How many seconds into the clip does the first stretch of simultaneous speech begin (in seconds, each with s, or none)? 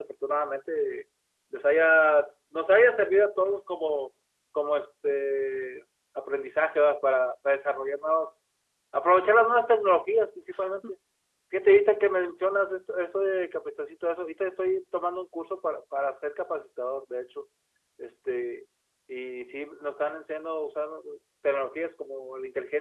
none